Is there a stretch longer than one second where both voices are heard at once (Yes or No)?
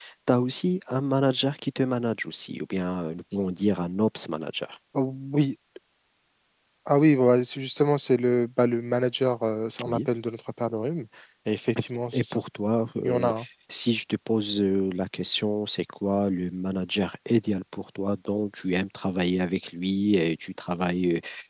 No